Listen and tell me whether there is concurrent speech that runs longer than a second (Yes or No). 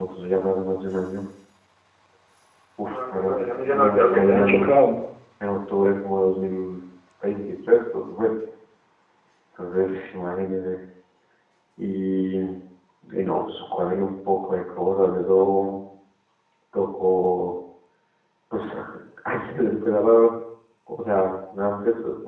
Yes